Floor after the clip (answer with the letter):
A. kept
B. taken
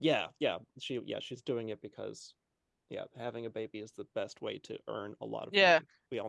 B